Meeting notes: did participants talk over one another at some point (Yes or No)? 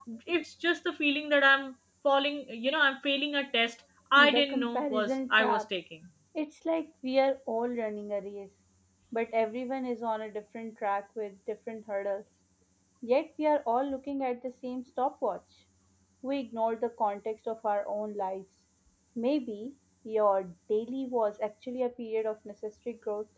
Yes